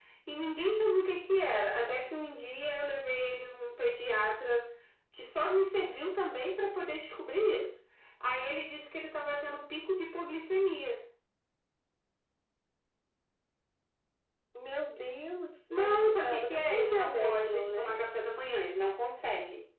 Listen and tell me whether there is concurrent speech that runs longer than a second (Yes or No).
Yes